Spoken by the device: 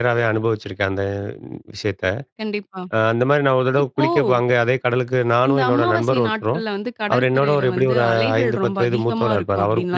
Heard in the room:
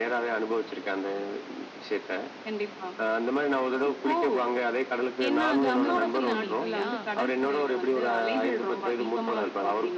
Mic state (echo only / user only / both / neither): both